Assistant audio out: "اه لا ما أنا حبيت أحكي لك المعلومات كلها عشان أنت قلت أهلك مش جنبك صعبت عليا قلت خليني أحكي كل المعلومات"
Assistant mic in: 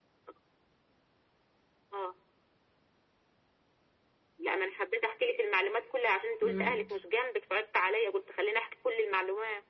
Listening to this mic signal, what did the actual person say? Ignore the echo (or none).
امم